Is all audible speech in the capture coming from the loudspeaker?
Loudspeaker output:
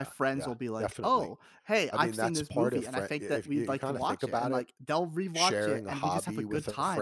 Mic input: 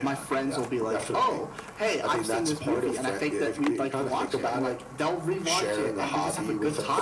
Yes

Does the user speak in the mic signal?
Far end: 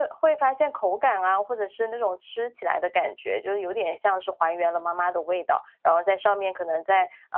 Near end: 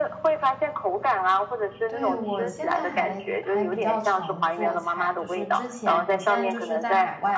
Yes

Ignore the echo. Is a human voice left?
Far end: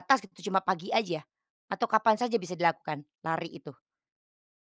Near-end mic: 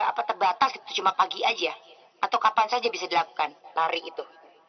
No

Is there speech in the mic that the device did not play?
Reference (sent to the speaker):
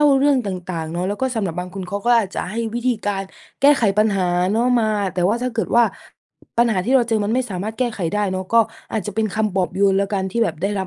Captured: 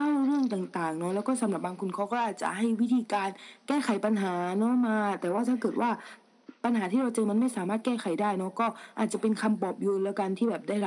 No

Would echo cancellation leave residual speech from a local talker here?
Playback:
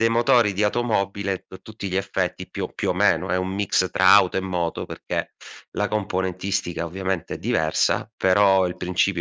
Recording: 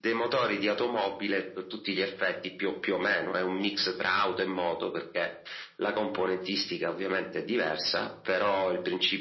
No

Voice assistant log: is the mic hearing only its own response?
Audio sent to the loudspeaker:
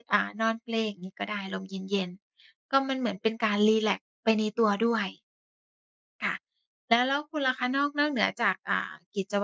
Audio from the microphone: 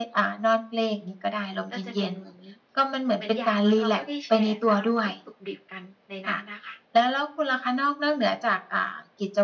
No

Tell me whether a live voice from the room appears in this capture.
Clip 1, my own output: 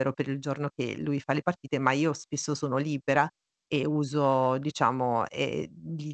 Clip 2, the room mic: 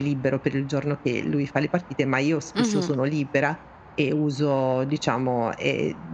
Yes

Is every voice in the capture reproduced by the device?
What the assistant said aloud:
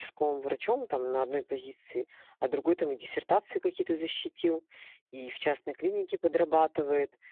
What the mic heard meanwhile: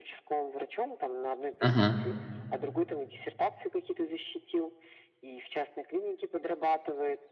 No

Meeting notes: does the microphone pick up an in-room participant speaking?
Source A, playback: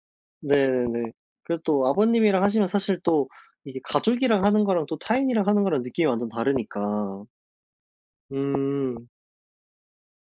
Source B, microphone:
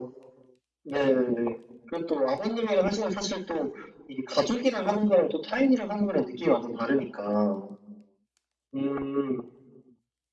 No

